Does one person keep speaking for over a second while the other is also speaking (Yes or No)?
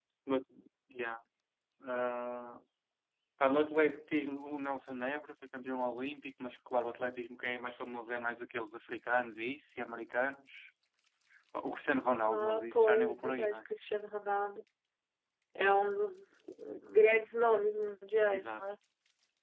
Yes